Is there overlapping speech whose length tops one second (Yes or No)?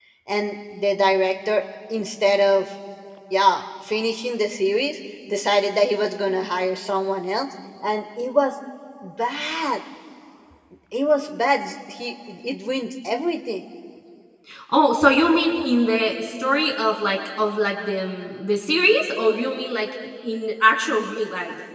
No